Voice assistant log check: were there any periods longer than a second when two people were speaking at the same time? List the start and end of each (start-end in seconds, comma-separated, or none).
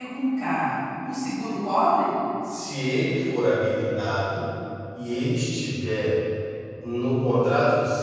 none